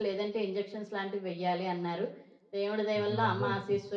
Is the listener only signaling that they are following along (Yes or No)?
Yes